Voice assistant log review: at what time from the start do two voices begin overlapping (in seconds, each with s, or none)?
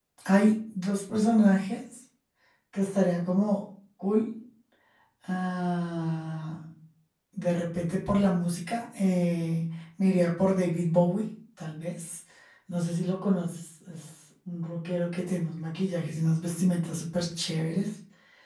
none